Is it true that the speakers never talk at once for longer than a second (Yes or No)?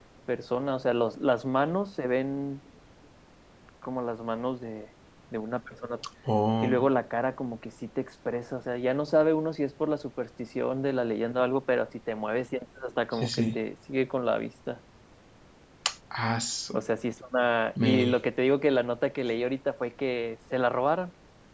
Yes